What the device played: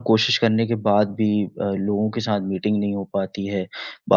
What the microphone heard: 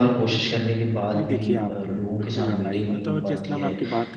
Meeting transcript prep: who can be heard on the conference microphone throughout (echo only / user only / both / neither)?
both